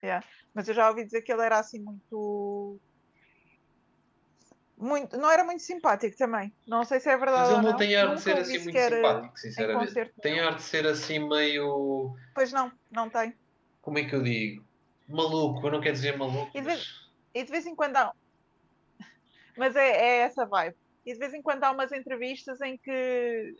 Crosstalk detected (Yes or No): Yes